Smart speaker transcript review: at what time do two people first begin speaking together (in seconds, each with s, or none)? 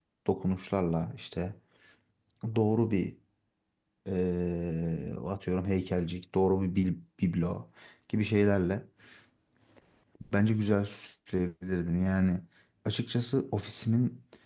none